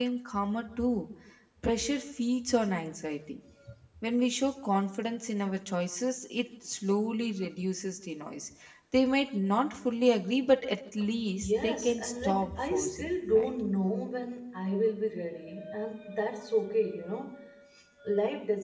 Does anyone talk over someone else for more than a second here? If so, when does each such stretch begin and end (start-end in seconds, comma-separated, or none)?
11.4-13.6